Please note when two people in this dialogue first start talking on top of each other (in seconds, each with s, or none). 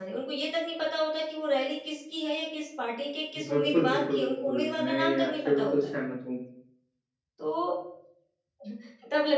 3.4 s